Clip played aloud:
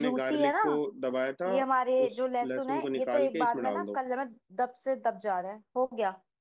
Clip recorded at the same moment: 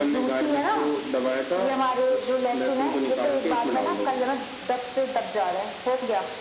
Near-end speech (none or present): none